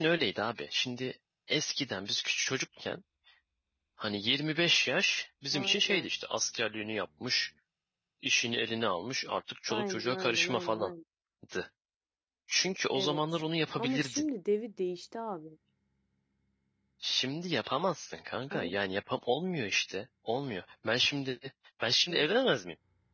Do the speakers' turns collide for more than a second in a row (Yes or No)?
Yes